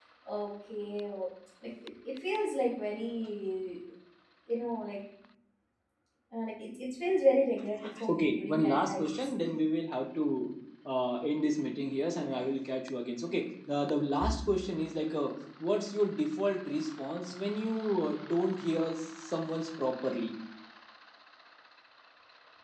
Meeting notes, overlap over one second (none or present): present